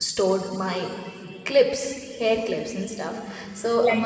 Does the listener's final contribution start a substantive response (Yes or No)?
No